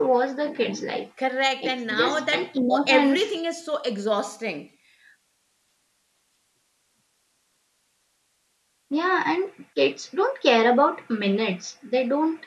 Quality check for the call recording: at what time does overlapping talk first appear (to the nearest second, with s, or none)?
2 s